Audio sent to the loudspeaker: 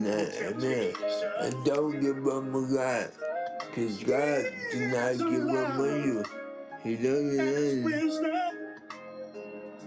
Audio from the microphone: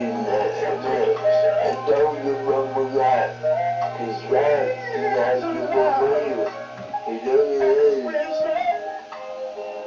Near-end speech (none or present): none